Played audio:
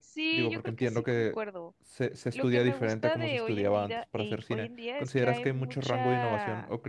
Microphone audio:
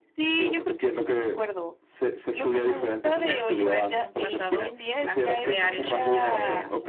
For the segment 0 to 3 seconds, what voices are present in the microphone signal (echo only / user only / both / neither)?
echo only